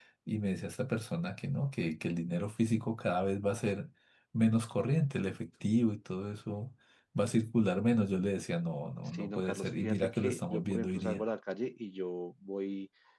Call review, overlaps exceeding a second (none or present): present